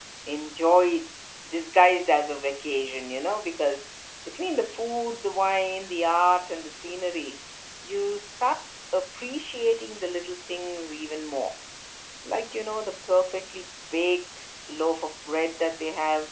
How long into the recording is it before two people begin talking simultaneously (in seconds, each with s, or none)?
none